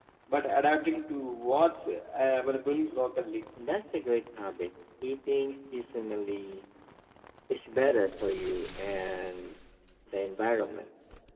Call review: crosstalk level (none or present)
none